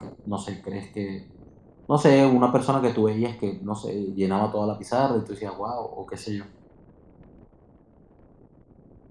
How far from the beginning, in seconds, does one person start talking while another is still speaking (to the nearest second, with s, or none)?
none